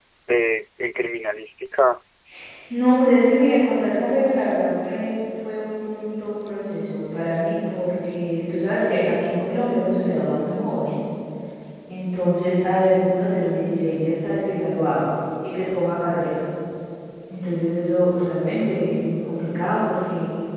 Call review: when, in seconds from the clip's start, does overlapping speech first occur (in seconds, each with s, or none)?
none